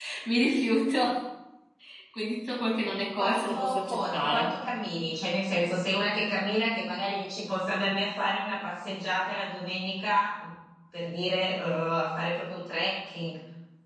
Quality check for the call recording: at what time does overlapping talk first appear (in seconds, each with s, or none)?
3.2 s